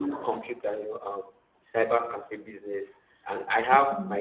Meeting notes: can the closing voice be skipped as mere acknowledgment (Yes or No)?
Yes